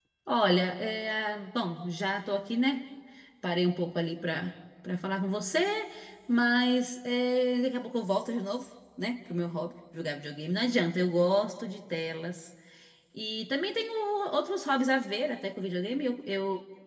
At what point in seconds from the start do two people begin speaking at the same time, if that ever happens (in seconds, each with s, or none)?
none